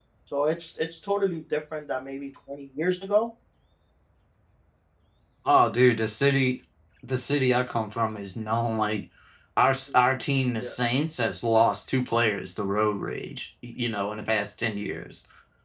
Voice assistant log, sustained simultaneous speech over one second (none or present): none